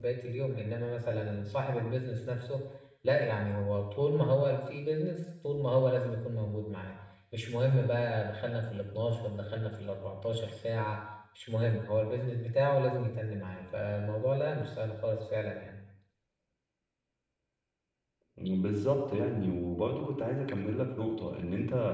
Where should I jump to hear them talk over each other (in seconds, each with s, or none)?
none